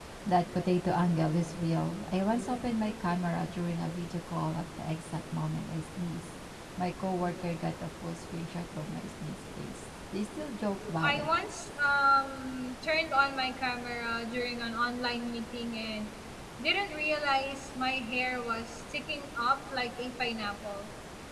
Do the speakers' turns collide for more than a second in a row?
No

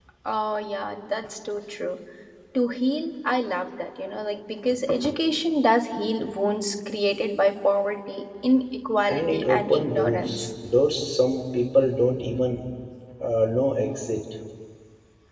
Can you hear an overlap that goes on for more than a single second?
Yes, from 9.1 s

